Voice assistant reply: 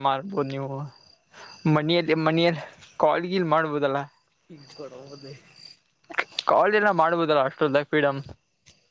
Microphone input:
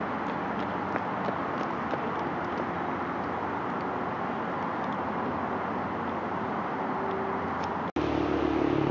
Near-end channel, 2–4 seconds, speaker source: neither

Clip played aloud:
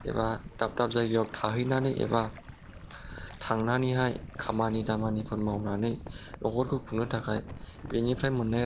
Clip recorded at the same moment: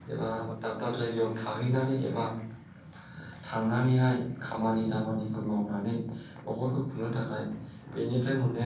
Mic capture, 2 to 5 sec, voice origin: echo only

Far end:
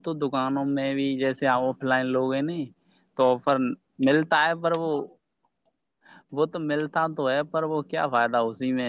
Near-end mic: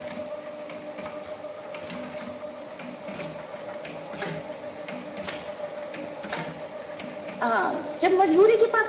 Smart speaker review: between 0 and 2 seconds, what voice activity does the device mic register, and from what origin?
neither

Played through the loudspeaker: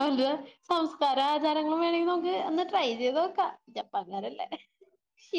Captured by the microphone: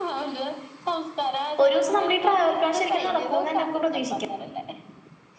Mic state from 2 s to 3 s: both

